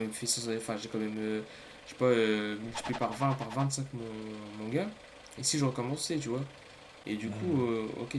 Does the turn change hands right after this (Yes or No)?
No